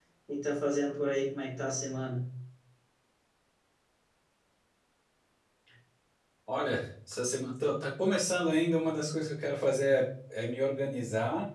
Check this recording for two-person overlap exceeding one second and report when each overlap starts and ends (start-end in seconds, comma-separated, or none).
none